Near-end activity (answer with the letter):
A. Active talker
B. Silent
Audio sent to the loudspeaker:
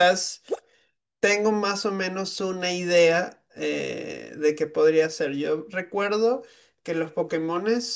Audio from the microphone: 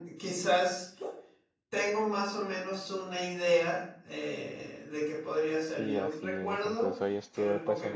A